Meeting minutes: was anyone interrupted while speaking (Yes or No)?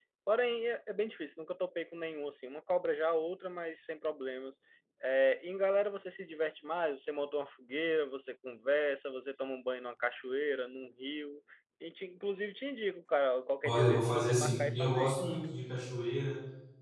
Yes